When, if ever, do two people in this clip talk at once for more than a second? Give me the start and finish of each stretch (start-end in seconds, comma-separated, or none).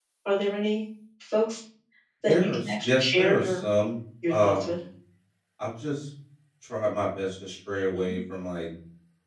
2.3-3.6